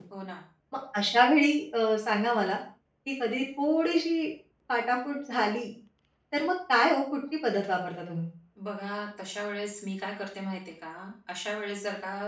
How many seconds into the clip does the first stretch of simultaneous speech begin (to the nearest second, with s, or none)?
none